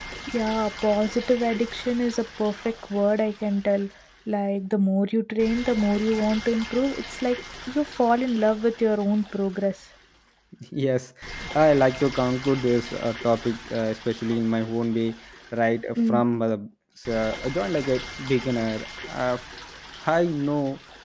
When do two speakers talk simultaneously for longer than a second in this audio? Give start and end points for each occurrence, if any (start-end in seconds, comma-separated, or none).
none